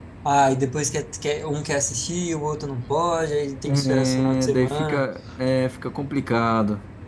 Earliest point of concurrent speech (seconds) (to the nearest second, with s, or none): 4 s